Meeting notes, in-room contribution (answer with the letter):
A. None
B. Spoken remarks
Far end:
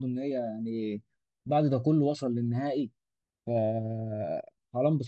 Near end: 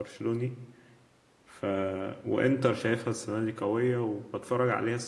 B